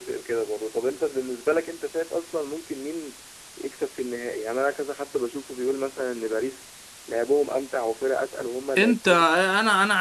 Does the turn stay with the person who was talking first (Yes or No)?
No